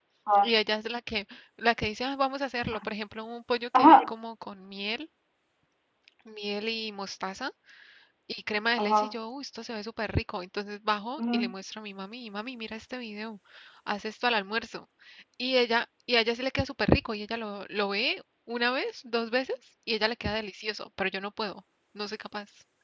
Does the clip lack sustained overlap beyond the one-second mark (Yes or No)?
Yes